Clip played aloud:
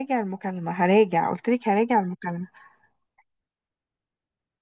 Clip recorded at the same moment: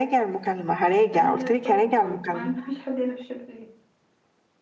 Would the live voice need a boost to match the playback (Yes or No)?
Yes